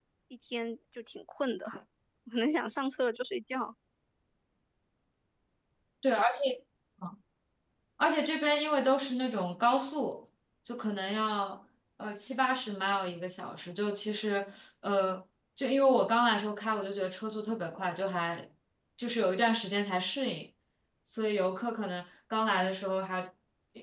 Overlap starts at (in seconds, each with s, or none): none